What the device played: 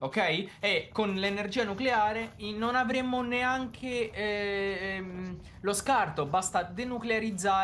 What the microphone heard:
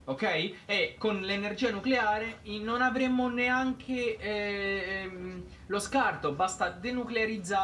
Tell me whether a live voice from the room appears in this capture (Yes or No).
No